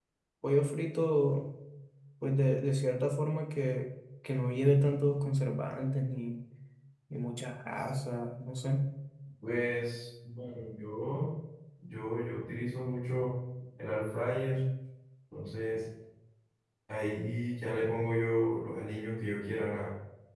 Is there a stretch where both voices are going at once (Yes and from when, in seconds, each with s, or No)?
No